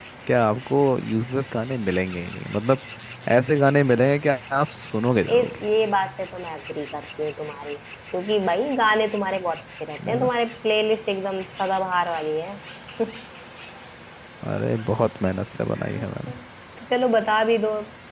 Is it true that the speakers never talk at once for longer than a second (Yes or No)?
Yes